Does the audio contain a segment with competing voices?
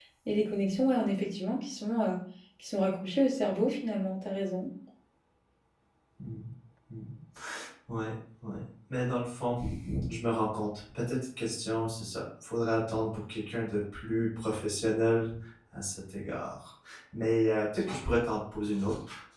No

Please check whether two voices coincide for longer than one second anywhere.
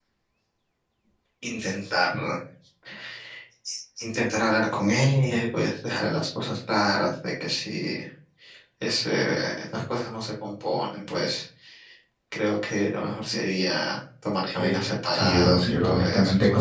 Yes, from 14.5 s

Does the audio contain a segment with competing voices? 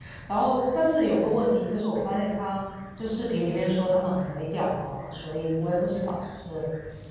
No

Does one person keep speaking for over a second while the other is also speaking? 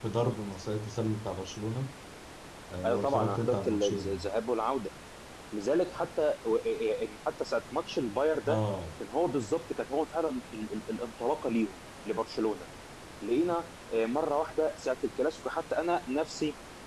Yes, from 2.8 s

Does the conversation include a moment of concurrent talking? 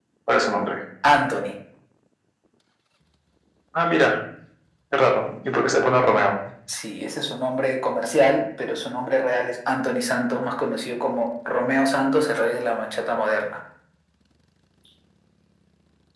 No

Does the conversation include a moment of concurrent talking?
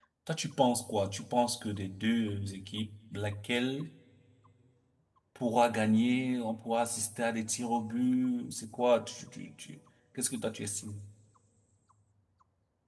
No

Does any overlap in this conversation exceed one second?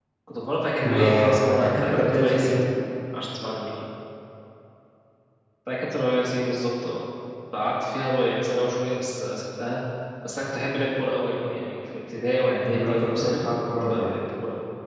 Yes, from 0.8 s

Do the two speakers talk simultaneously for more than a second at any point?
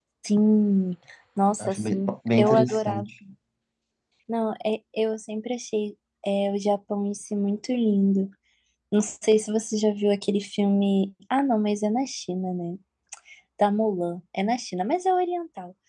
Yes, from 1.6 s

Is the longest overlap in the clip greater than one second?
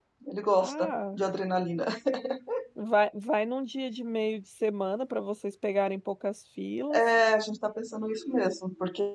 No

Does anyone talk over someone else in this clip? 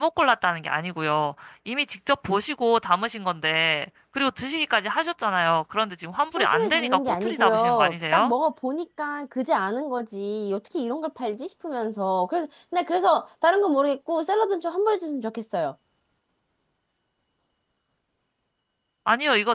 Yes, from 6.4 s

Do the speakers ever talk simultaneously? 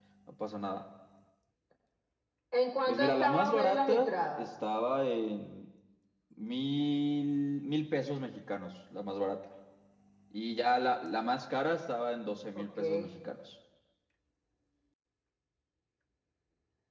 Yes, from 2.9 s

